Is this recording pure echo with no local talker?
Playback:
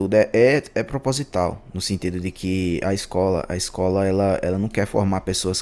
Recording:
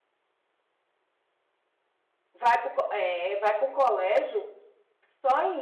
No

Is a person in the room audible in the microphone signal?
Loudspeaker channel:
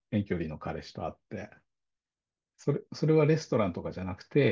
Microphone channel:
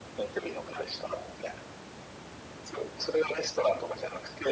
No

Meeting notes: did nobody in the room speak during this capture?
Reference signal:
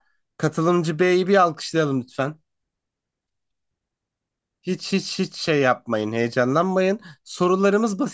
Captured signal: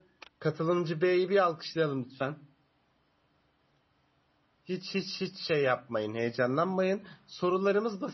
Yes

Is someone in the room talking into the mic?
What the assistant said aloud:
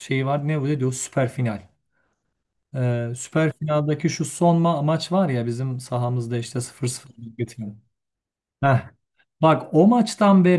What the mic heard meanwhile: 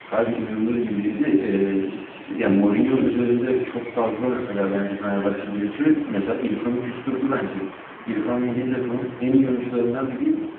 Yes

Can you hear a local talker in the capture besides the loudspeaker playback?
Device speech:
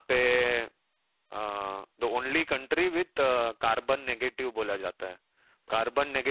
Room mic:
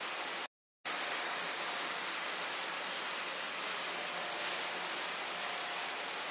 No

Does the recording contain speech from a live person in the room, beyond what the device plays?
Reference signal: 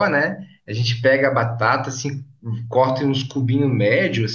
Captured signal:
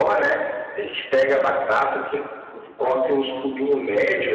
No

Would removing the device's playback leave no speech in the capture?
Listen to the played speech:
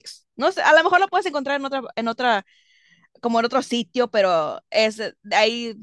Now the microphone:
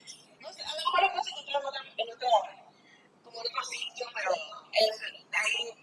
Yes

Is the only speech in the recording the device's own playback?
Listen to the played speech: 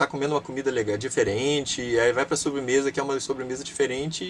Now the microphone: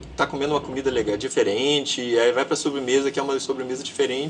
Yes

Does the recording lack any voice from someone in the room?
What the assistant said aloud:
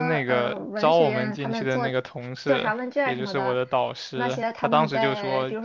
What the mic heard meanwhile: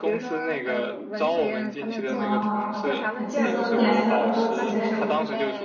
No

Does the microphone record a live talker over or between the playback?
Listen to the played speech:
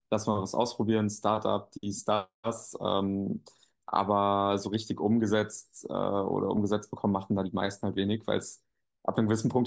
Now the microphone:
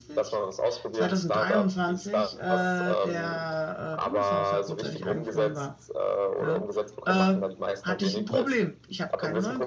Yes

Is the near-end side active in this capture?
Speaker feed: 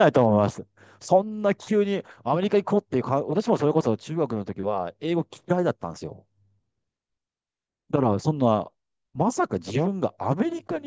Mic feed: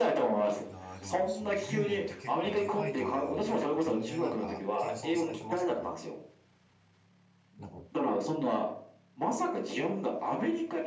Yes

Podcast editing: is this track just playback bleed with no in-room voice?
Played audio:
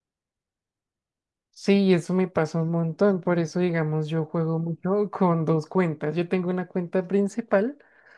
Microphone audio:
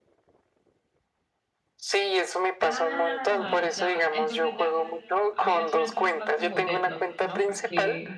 No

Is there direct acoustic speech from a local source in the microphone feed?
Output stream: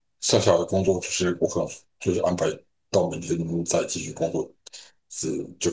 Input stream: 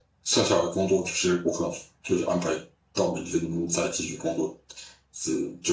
No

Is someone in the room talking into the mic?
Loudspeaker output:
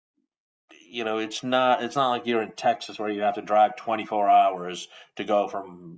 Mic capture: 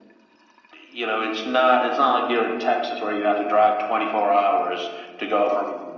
No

